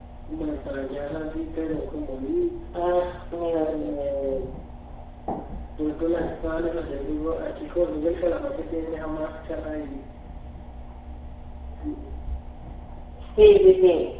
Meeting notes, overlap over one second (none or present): none